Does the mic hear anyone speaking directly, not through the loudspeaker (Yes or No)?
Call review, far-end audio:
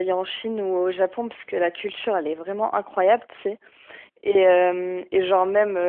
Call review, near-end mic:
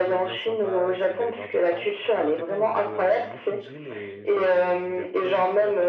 Yes